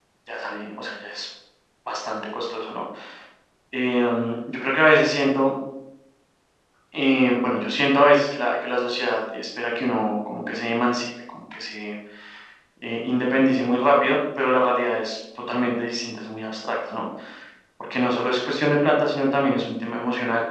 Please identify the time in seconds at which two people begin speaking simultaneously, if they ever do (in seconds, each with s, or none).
none